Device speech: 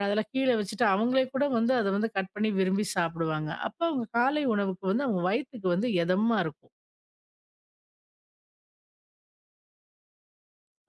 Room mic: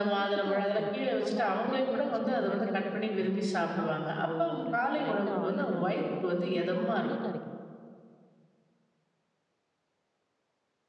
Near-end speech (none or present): present